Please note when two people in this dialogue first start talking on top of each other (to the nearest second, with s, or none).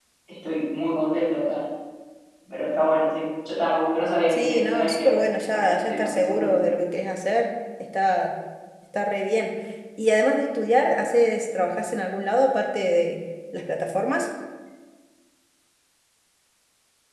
4 s